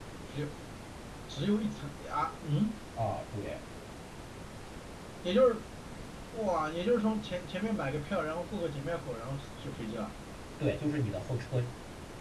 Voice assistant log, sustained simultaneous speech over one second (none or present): none